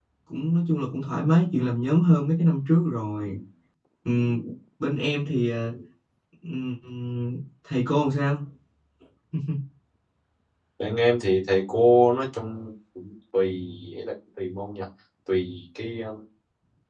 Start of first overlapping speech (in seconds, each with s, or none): none